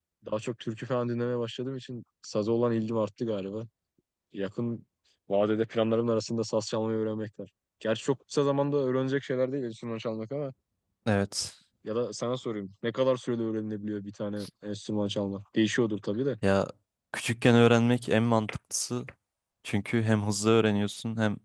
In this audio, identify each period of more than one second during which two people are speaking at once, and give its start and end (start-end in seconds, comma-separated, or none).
none